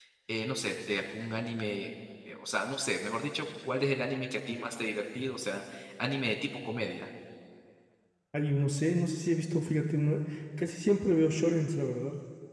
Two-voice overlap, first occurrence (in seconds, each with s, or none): none